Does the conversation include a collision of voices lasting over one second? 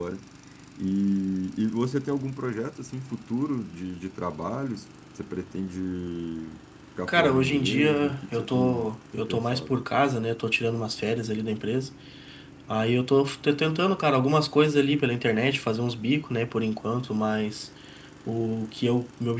Yes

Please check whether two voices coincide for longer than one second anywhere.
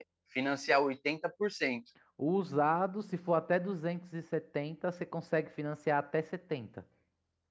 No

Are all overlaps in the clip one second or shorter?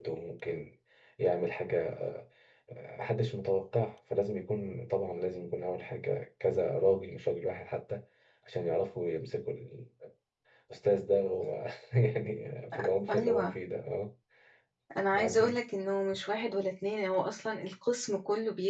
Yes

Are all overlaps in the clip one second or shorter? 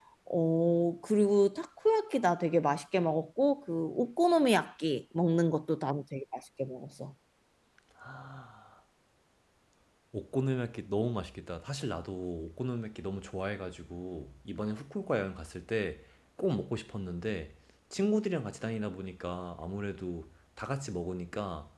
Yes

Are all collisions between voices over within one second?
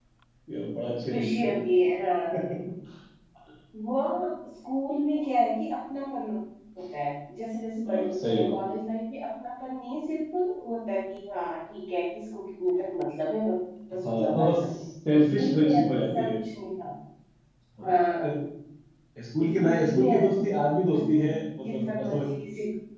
No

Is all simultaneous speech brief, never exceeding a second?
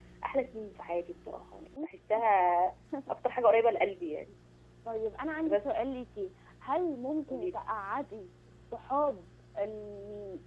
Yes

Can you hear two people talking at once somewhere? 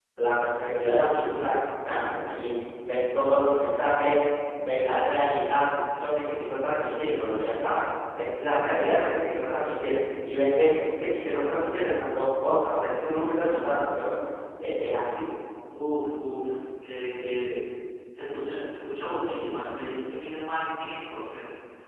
No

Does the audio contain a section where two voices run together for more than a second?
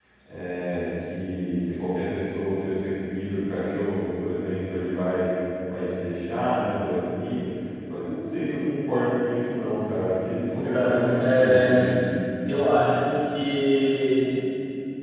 Yes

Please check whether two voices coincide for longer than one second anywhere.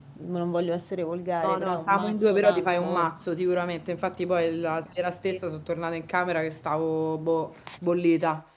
Yes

